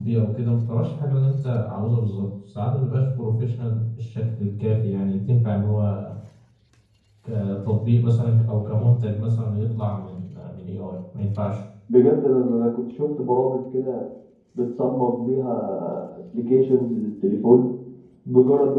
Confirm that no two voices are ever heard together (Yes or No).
Yes